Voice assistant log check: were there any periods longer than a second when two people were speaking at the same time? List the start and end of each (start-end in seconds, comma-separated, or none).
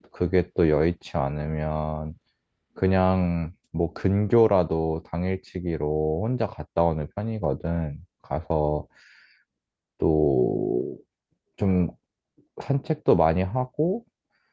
none